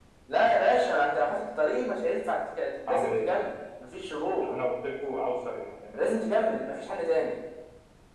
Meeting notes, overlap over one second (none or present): none